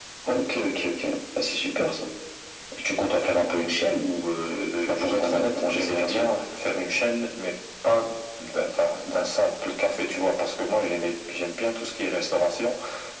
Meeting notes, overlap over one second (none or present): present